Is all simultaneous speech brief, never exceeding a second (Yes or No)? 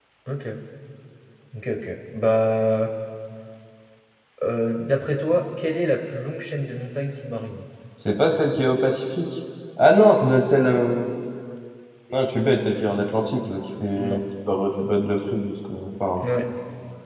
Yes